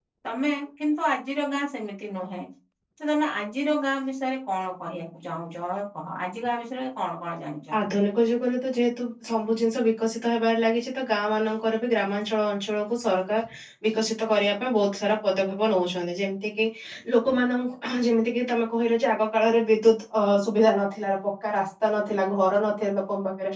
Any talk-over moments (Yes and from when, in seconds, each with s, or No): No